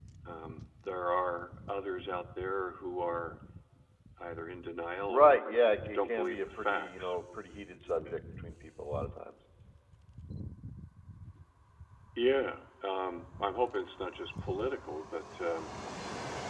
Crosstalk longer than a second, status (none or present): present